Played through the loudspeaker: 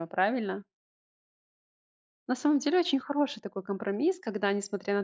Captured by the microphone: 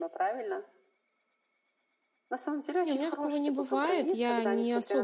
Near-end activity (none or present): present